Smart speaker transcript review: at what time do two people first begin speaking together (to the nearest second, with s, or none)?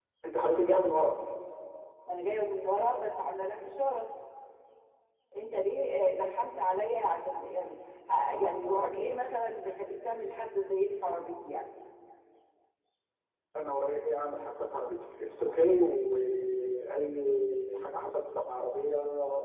none